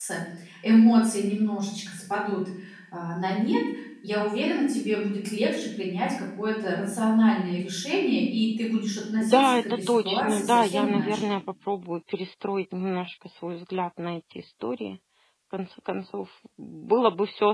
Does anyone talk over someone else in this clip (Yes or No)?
Yes